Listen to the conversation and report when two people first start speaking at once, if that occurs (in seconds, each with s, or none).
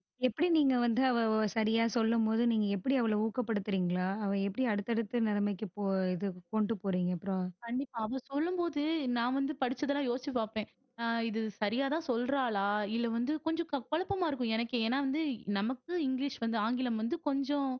none